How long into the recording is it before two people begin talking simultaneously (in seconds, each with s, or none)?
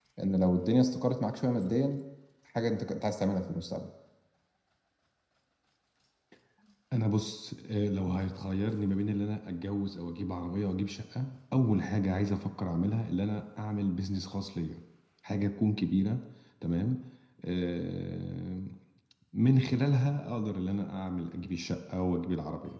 none